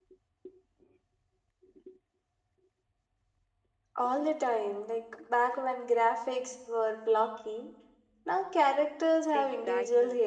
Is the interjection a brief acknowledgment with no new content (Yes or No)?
No